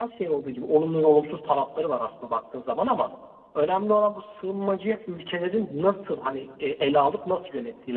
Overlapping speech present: No

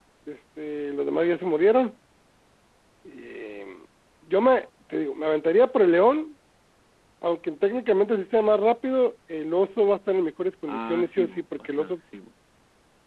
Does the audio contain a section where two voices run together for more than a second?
Yes, from 10.7 s

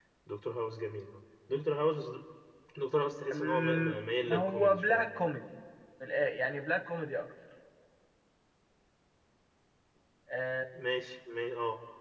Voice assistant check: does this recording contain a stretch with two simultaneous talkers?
Yes, from 3.3 s

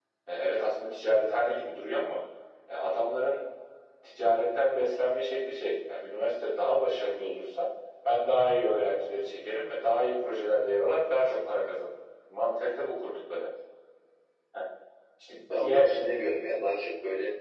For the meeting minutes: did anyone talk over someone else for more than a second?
No

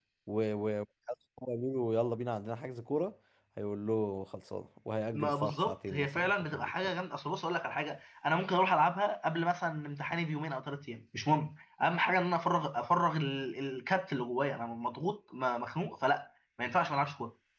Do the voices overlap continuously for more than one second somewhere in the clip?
Yes, from 5.1 s

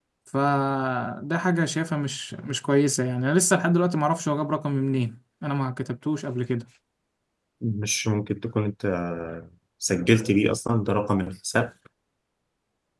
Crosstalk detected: No

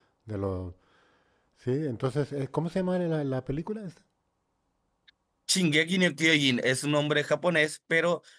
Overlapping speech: No

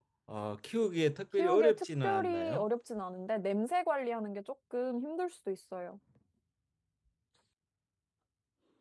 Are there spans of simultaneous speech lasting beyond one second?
Yes, from 1.4 s

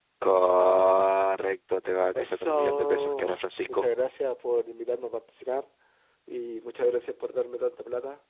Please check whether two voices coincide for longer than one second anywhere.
Yes, from 2.1 s

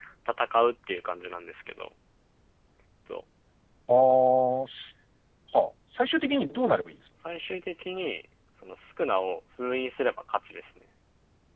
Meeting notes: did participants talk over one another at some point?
No

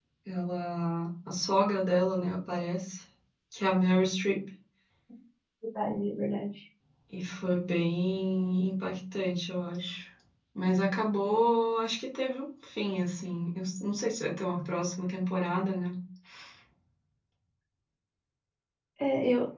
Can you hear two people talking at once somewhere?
No

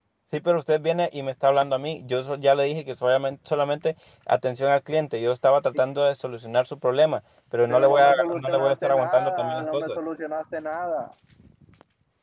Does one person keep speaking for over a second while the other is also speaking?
Yes, from 7.7 s

